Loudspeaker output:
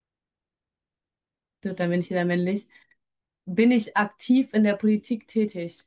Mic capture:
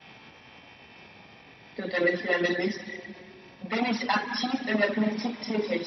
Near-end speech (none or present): none